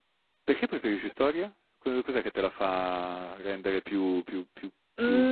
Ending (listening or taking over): taking over